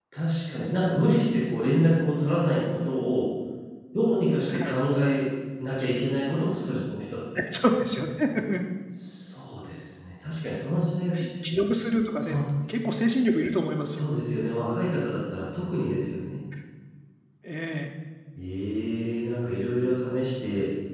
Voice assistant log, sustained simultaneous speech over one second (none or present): none